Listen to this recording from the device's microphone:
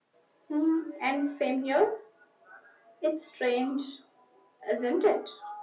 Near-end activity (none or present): none